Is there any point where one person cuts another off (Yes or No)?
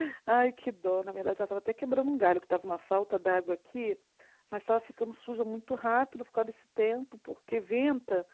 No